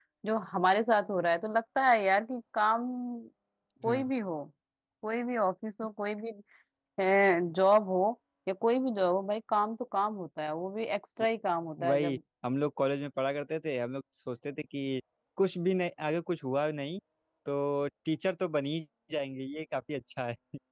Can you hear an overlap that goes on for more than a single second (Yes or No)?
No